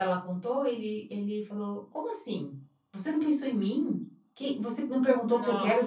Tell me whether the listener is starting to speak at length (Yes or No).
No